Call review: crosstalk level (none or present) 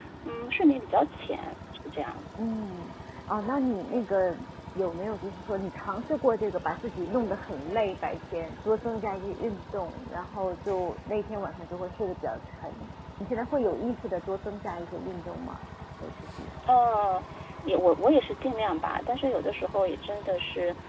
none